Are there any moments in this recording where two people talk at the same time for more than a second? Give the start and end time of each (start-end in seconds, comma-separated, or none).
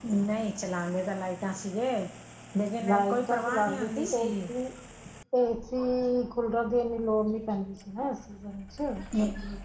2.9-4.2